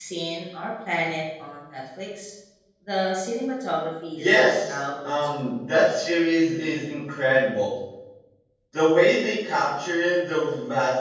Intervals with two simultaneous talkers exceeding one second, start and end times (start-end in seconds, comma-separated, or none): 4.2-5.5